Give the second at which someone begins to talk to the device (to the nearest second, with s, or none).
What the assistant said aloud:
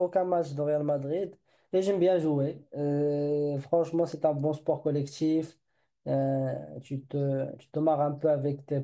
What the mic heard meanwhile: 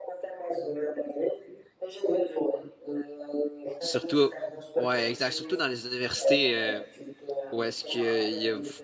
4 s